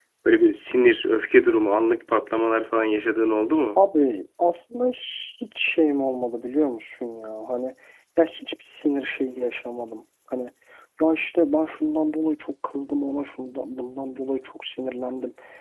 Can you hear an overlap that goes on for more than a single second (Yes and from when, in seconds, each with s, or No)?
No